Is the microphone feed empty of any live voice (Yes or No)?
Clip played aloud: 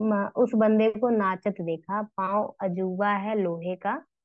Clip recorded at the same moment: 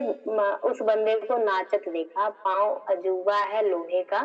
Yes